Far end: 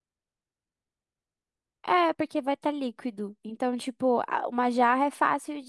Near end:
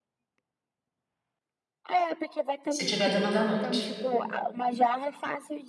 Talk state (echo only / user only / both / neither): both